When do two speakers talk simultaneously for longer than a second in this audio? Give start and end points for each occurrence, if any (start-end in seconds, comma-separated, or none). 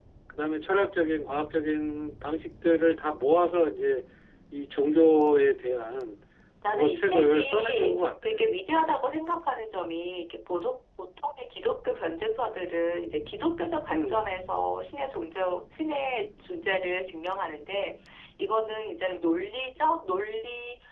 6.7-8.5